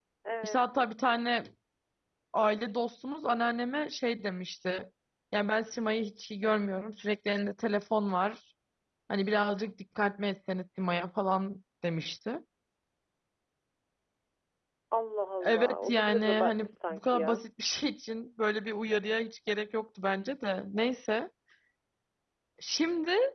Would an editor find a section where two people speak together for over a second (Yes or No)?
Yes